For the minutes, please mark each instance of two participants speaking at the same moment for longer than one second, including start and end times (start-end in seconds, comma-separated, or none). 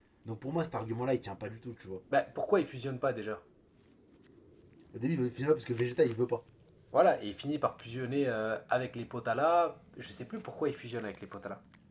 none